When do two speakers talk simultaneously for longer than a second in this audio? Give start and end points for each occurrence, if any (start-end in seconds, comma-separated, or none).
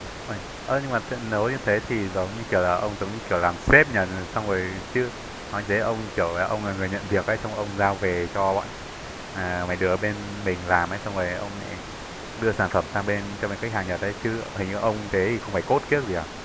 none